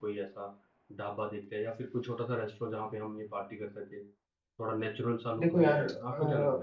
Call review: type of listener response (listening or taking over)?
taking over